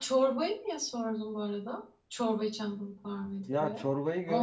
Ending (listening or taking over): taking over